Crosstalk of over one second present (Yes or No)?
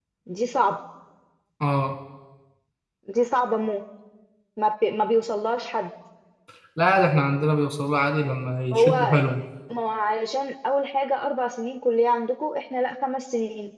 No